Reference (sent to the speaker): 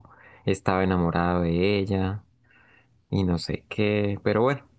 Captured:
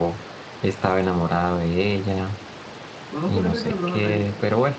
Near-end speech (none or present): present